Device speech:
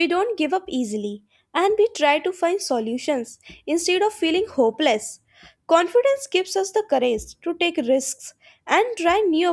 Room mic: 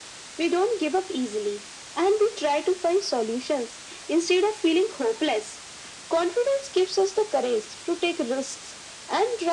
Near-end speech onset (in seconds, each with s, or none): none